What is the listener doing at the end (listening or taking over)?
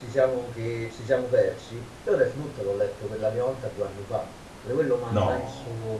listening